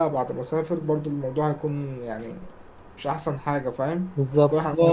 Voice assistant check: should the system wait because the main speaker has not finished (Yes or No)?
No